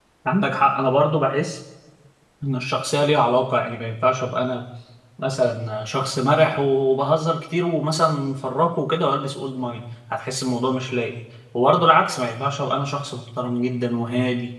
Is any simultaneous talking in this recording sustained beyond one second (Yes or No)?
No